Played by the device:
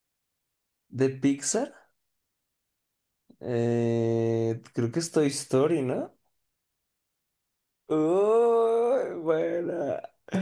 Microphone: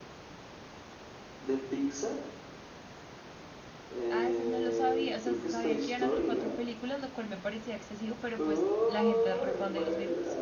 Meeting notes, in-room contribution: present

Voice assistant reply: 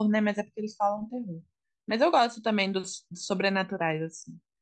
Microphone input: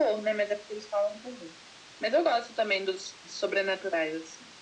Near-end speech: none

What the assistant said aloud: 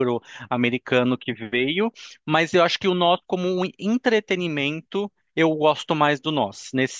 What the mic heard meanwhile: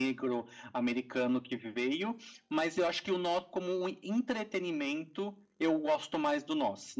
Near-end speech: none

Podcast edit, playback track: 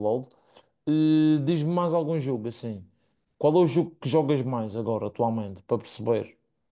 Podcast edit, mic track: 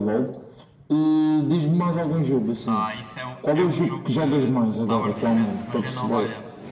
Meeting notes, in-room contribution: present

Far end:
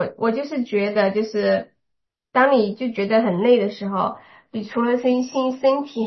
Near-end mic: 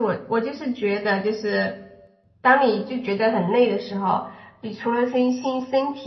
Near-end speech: none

